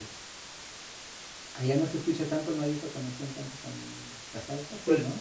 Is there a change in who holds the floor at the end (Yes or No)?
Yes